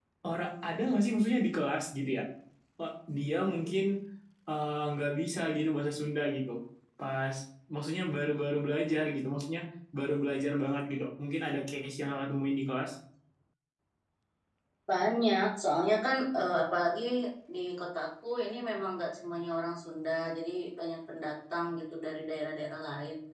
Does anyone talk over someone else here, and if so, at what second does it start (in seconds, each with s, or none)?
none